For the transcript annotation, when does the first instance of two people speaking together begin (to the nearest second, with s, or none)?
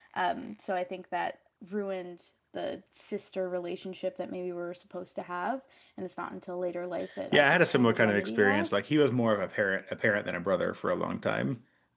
7 s